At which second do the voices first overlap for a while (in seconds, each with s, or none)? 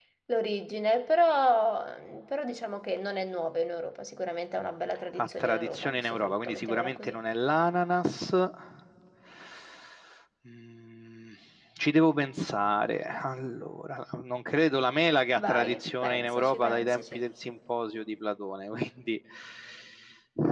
5.2 s